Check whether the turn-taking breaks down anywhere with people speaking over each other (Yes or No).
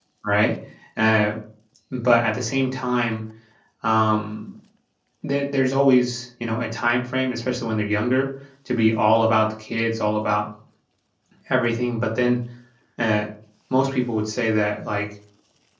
No